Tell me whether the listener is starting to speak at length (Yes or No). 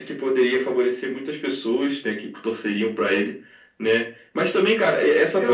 No